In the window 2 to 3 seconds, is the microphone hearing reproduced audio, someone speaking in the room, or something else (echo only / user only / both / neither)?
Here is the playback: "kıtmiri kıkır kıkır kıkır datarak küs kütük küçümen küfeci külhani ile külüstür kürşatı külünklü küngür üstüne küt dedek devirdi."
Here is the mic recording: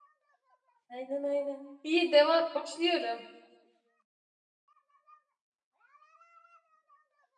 user only